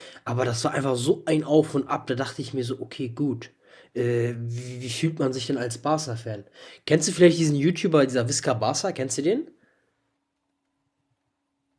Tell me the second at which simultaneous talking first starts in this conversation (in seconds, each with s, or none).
none